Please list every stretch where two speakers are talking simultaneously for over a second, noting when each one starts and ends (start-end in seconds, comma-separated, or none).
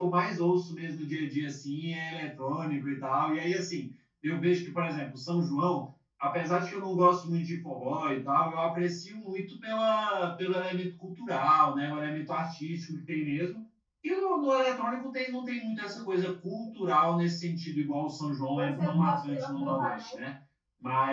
18.5-20.2